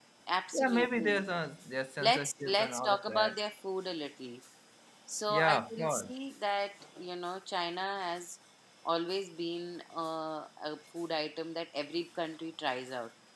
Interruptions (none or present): present